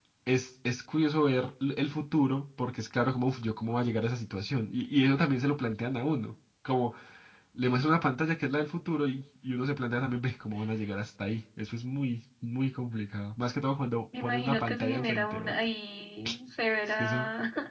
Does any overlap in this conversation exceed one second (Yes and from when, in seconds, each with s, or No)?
Yes, from 14.2 s